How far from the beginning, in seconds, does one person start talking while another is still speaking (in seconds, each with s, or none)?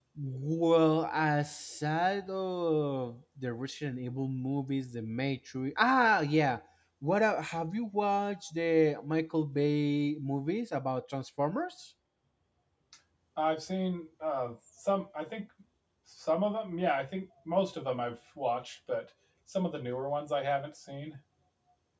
none